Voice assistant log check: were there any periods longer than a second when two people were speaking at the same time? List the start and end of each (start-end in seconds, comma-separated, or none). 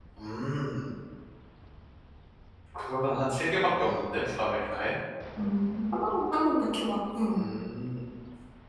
none